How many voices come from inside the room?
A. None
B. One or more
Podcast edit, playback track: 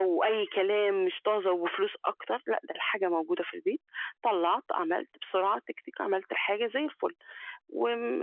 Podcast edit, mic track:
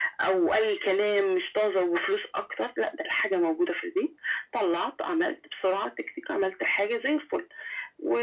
A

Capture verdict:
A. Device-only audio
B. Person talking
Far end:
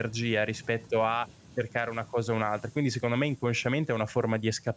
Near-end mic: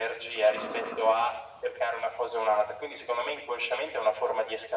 A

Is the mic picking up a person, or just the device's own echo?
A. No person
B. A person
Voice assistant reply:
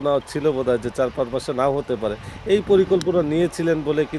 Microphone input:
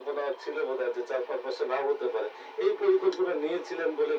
A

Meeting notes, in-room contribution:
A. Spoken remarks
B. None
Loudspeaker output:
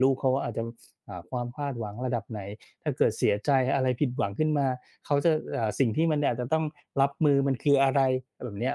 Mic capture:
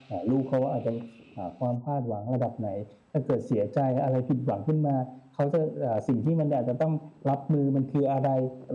B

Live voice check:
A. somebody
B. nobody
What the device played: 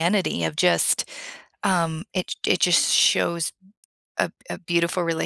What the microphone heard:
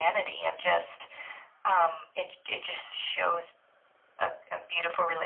B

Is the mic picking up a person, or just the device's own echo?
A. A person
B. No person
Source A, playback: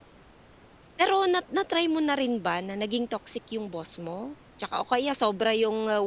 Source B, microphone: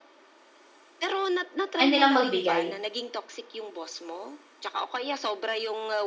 A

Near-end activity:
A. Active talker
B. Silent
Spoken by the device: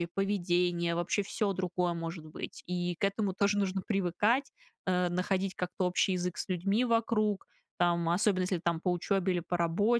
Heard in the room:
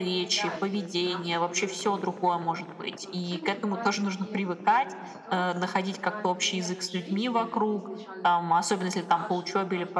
A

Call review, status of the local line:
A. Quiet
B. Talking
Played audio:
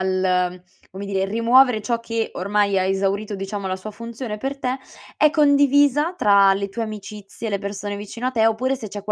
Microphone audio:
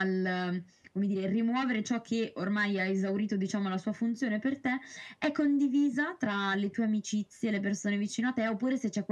A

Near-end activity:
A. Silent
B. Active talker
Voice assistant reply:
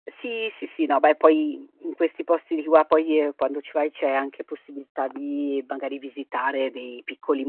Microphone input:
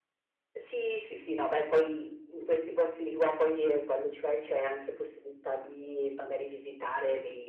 A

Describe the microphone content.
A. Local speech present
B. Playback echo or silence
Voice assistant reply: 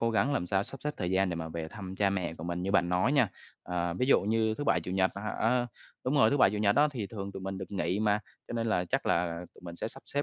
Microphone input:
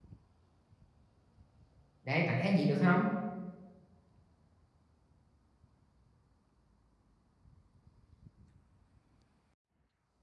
A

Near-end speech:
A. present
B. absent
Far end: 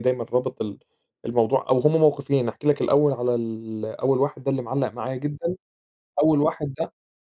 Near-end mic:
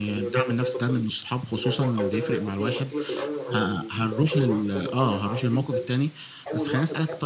A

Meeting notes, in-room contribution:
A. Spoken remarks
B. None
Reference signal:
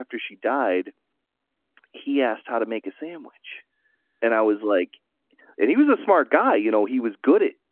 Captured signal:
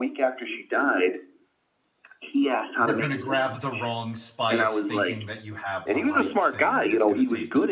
A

